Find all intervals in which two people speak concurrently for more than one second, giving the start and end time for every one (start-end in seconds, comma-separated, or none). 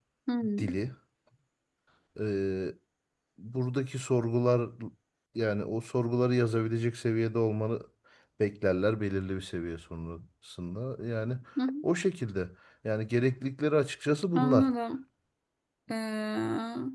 none